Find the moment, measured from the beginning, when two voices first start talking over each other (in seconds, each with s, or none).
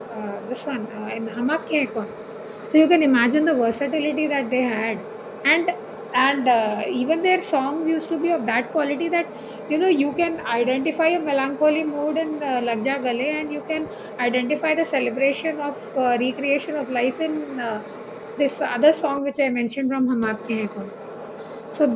none